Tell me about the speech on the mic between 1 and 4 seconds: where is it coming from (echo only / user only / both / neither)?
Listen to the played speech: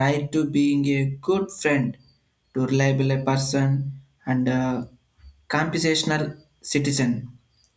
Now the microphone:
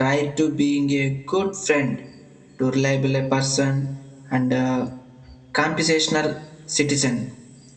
echo only